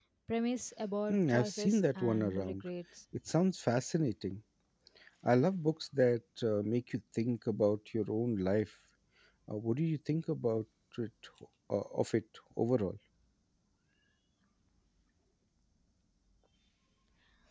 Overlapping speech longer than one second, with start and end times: 1.1-2.6

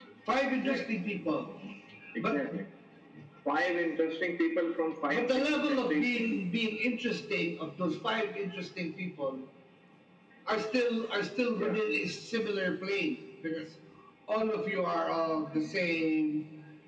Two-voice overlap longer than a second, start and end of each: 5.1-6.4

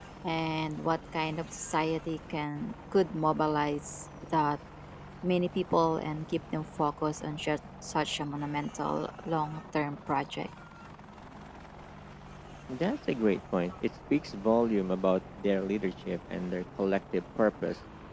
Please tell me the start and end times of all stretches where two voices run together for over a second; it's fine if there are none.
none

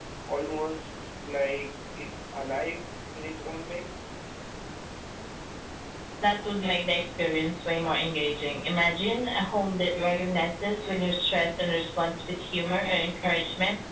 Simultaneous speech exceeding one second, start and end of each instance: none

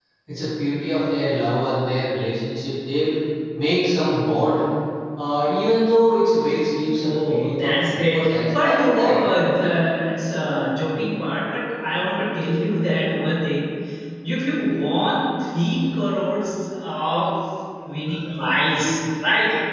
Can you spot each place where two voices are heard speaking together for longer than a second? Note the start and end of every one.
7.0-9.2

